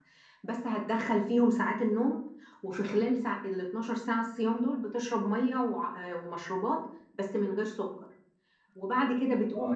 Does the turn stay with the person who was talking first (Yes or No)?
No